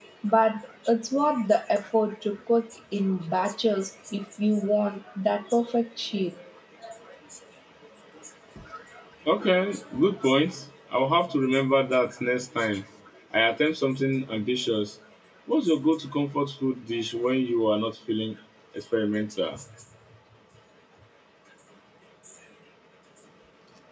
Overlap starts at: none

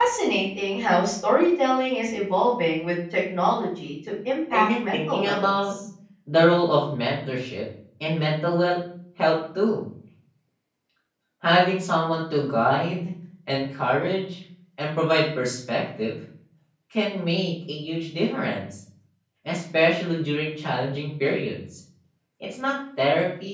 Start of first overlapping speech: 4.5 s

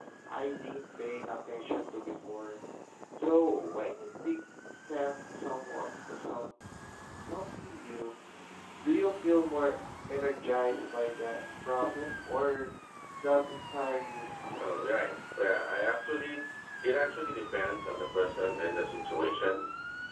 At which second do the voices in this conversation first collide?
none

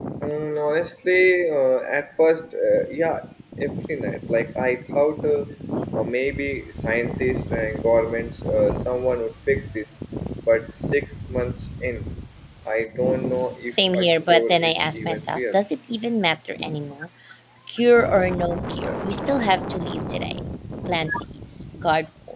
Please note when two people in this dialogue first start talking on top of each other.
13.7 s

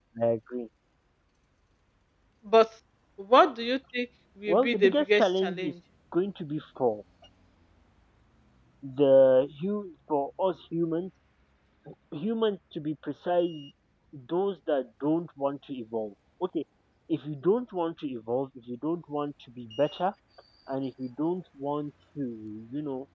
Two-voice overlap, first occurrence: 4.5 s

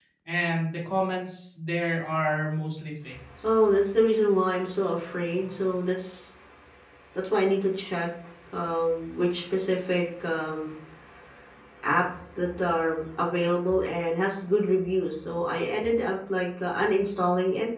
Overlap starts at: none

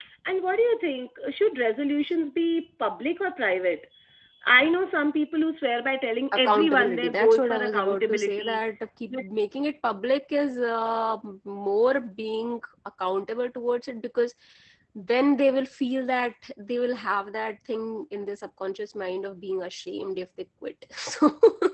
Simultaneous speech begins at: 6.3 s

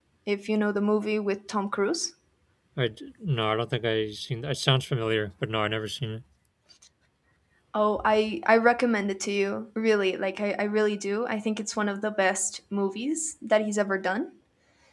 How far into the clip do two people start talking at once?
none

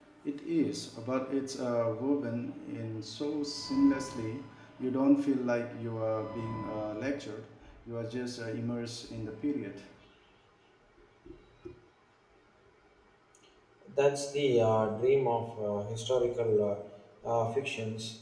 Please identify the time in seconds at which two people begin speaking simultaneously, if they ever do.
none

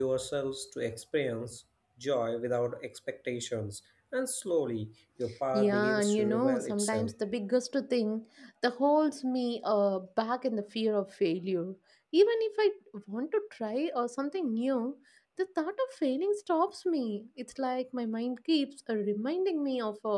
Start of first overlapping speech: 5.5 s

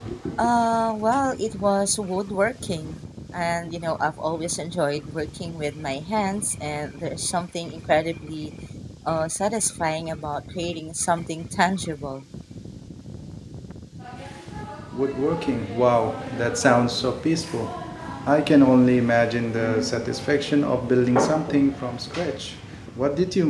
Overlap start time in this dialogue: none

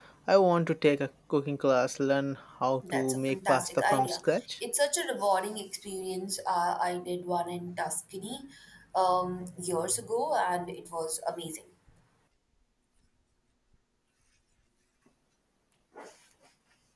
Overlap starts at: 2.8 s

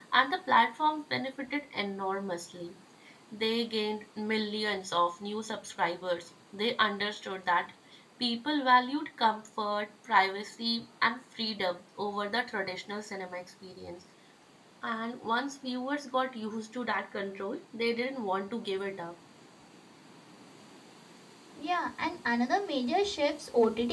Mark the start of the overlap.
none

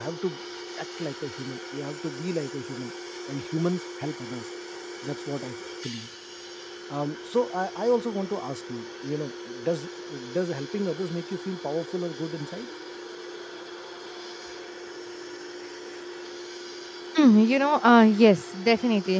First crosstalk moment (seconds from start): none

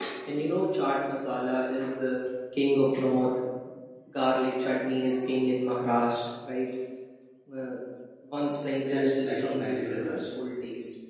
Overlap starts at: 8.8 s

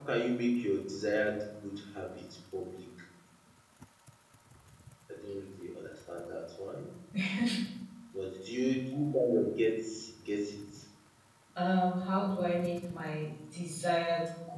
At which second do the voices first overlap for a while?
none

